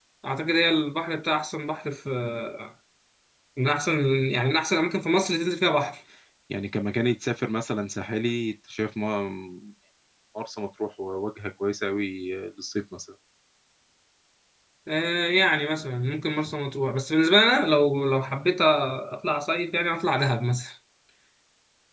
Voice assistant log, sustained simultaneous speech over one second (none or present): none